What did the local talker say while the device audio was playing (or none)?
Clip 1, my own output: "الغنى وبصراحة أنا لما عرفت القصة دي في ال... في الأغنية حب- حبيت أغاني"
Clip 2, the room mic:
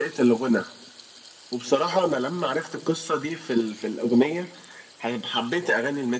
none